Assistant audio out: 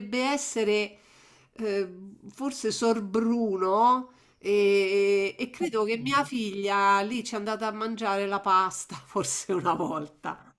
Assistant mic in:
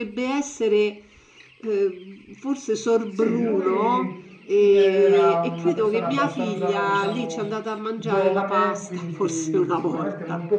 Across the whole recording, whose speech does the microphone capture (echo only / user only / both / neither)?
both